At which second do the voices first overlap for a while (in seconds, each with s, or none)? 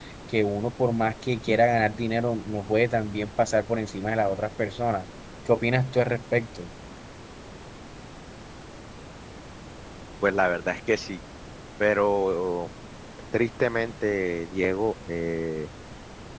none